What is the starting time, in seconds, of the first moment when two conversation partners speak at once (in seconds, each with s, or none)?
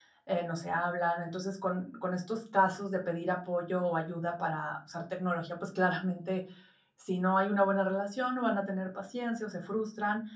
none